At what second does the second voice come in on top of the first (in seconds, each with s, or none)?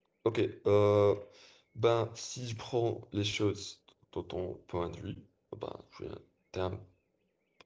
none